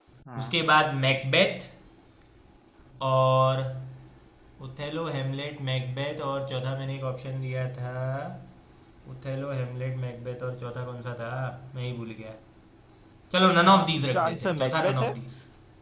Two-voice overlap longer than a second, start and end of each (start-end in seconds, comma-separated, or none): 13.6-15.1